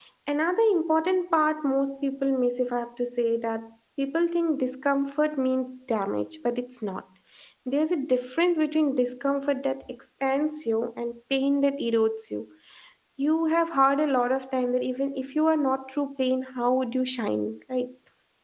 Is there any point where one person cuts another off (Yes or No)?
No